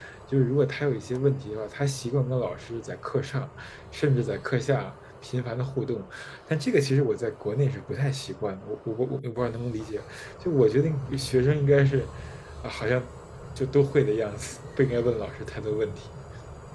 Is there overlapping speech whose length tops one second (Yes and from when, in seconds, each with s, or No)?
No